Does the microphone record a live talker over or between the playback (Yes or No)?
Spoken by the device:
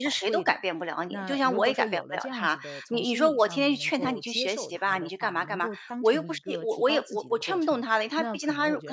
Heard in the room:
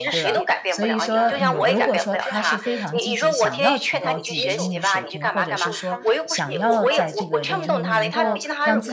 Yes